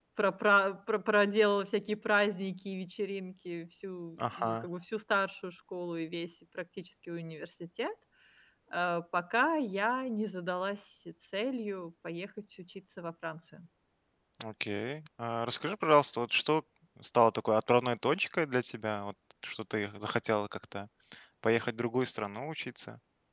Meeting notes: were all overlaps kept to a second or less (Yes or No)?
Yes